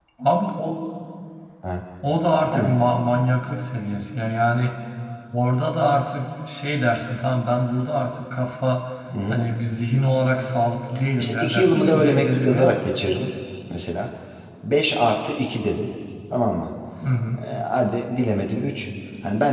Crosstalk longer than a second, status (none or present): present